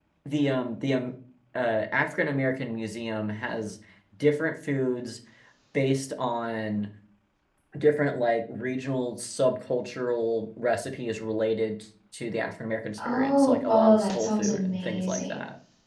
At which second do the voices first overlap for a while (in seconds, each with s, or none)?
13.0 s